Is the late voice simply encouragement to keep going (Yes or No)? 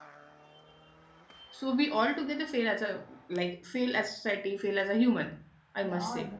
No